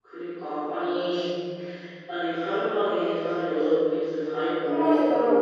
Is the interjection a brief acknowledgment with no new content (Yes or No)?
Yes